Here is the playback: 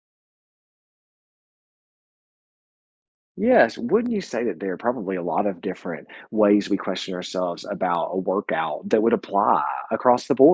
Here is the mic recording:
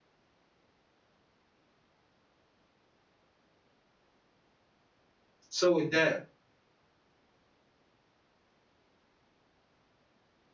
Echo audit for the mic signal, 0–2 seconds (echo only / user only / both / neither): neither